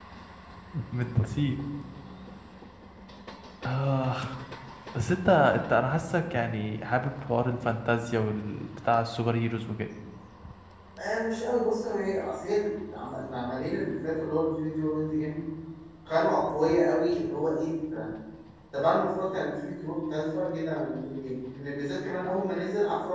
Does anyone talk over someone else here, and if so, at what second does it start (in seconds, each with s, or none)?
none